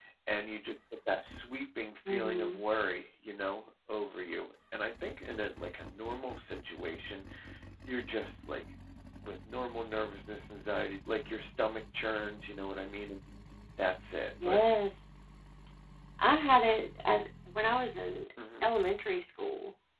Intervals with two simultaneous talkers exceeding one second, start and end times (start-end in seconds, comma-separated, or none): none